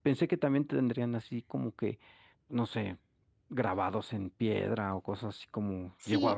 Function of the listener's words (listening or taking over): taking over